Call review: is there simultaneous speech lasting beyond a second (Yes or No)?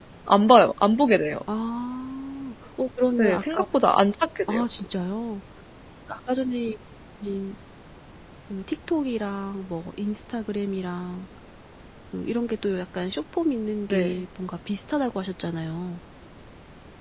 No